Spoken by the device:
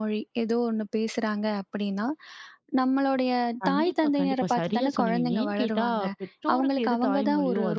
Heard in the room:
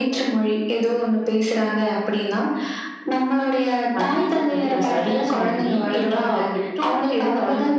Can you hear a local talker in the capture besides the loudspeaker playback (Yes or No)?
No